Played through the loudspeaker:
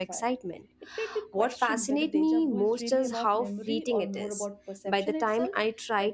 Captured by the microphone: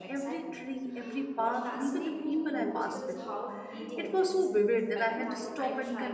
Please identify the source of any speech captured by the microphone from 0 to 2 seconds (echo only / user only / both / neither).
both